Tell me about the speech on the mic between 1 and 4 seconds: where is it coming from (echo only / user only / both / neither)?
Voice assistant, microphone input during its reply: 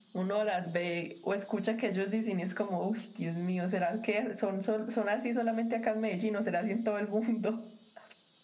echo only